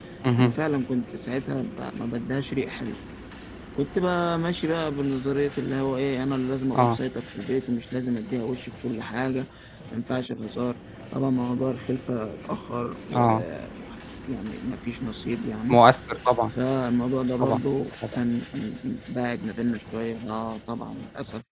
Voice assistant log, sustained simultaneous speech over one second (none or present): none